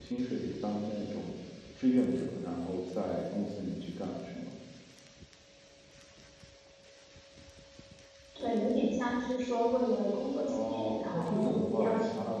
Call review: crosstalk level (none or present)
present